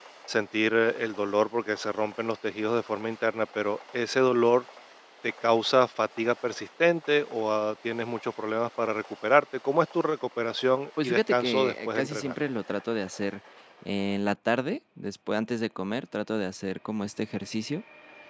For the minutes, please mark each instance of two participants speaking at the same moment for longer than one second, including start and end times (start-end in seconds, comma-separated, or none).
11.0-12.3